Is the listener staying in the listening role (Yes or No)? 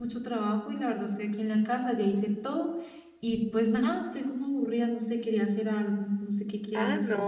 No